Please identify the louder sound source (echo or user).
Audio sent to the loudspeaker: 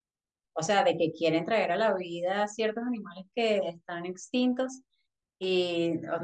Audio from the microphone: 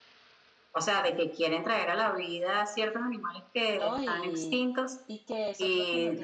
echo